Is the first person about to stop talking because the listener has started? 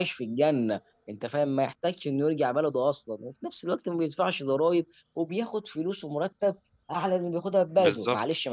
No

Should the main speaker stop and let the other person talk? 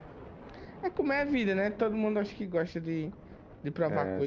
Yes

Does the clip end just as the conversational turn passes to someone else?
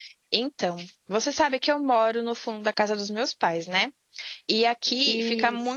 No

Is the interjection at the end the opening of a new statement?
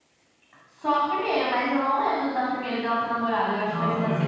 Yes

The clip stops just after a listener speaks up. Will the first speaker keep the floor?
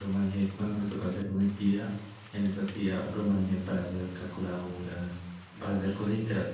Yes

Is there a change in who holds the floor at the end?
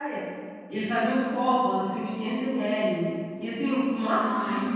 No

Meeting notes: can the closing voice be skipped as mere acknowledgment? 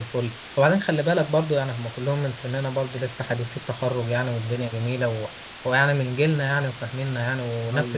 Yes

